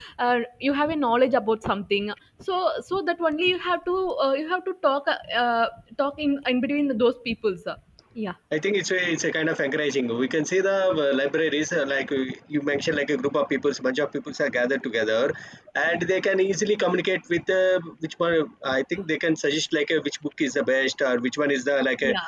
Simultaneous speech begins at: none

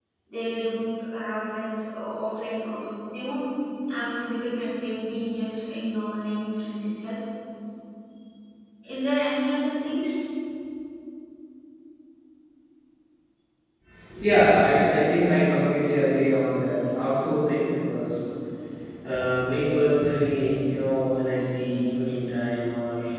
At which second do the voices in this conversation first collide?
none

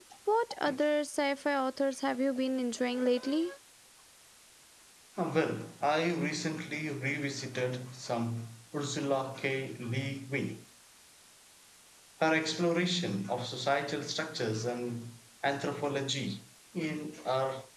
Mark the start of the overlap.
none

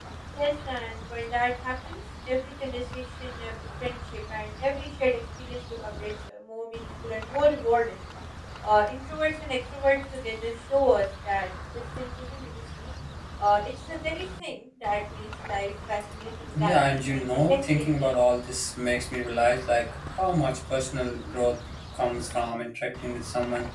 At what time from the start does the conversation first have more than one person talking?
16.4 s

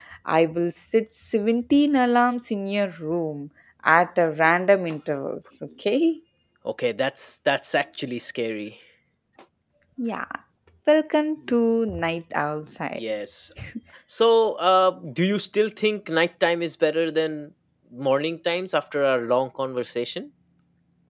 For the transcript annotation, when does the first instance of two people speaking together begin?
none

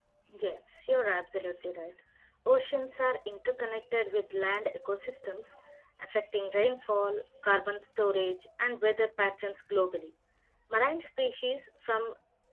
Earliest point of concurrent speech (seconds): none

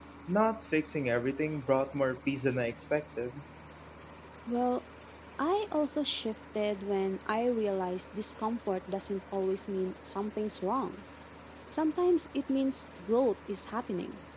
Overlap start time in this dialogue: none

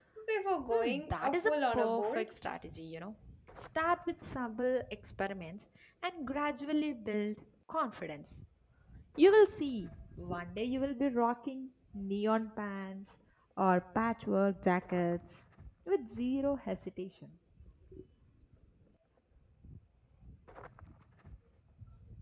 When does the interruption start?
0.7 s

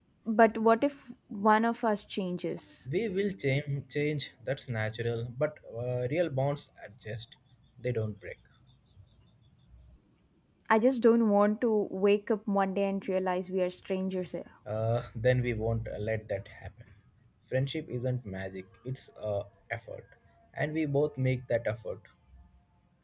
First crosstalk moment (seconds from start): none

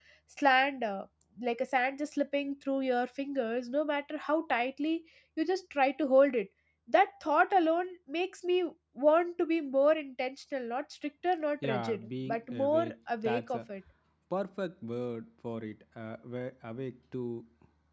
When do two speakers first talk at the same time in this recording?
11.6 s

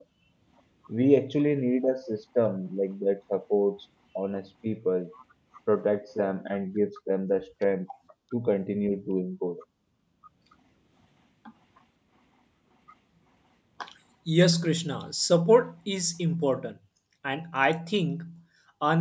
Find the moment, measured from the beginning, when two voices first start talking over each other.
none

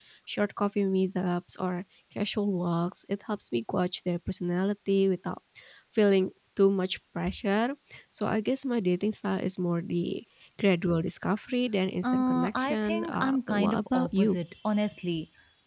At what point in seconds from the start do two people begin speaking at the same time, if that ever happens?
12.0 s

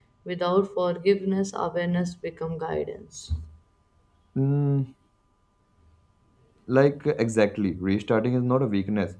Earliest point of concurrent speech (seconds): none

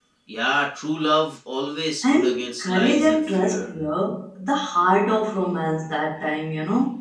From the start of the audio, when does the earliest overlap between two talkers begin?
2.0 s

